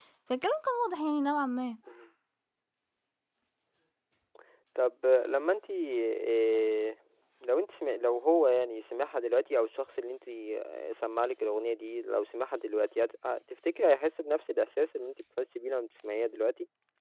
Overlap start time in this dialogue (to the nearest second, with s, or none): none